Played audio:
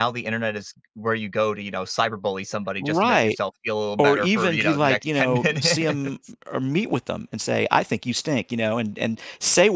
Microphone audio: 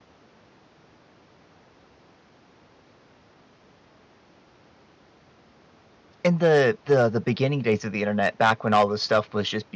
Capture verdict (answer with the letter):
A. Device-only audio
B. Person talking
B